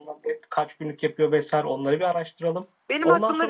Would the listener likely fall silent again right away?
No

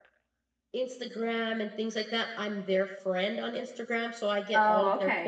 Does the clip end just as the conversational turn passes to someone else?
No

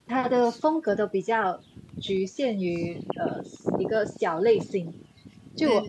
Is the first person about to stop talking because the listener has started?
No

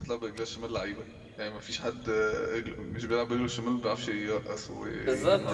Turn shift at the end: Yes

